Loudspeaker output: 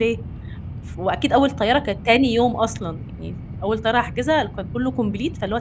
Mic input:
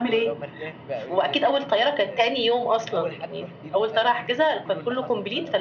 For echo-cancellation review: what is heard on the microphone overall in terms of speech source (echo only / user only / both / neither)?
both